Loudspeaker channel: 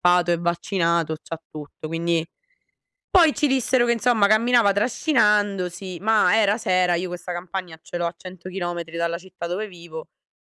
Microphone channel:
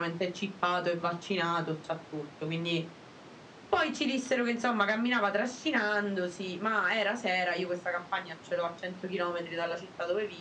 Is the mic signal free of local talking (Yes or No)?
Yes